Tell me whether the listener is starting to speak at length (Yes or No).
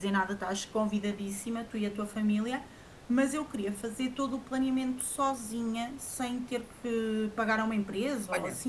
Yes